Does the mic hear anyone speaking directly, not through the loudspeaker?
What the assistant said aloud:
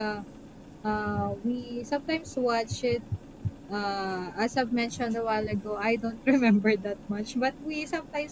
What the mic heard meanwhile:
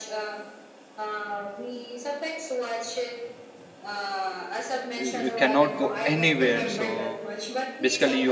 Yes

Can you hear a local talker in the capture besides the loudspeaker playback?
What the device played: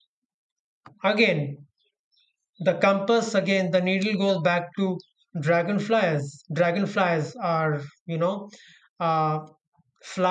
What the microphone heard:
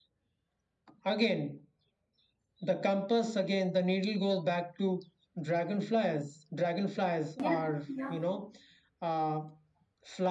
Yes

